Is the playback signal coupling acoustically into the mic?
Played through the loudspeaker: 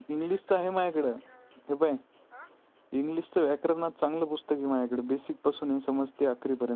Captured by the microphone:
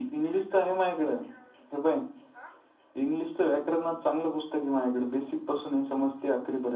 Yes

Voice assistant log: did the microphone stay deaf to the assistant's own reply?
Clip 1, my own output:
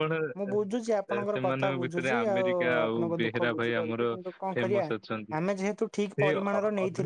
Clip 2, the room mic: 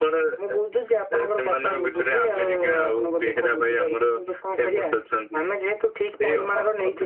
No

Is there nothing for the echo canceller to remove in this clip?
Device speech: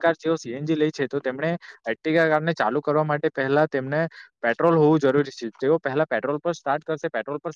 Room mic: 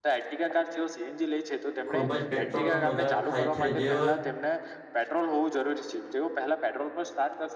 No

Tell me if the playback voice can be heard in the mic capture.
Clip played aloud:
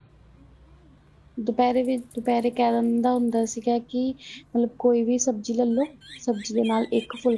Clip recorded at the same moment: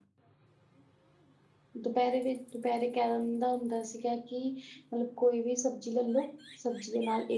Yes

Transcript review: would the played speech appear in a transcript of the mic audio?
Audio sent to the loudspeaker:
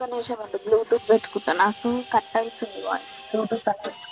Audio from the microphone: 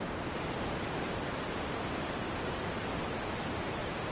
No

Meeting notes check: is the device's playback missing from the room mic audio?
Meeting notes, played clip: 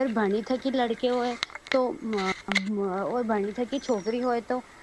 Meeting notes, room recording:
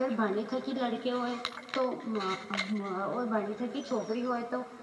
No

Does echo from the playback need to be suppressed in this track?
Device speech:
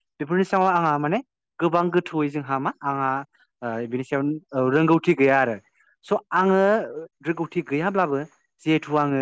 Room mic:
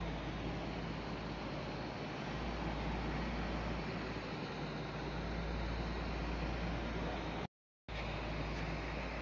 No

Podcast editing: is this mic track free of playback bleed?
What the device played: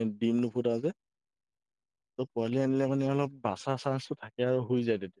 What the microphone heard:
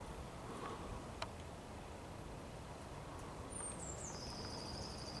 Yes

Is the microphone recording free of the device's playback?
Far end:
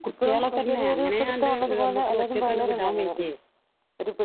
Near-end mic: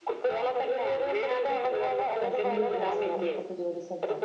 No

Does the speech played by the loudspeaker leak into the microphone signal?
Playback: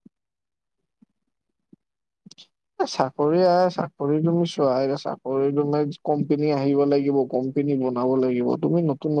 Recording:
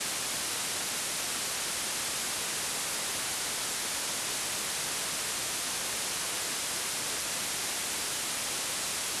No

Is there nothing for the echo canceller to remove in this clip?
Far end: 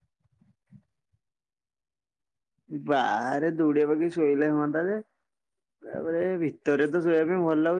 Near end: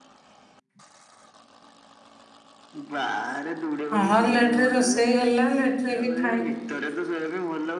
No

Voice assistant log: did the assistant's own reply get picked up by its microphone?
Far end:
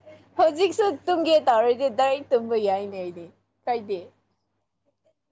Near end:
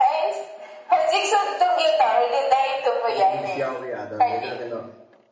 Yes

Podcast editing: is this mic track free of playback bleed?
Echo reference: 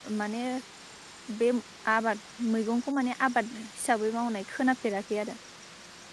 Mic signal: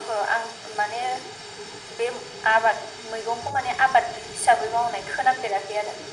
No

